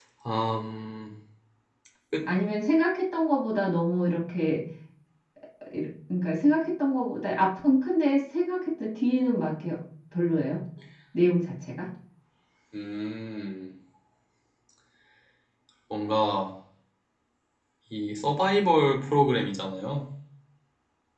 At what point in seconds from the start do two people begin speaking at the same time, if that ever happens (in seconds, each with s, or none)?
none